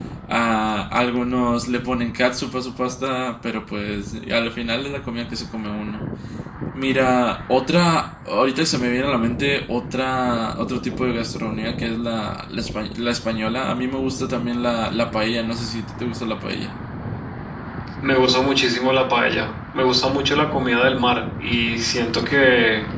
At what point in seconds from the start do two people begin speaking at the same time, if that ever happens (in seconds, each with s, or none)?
none